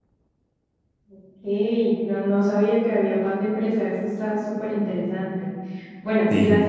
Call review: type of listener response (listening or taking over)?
listening